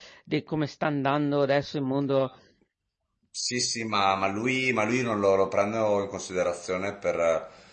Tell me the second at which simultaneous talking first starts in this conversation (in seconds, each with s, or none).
none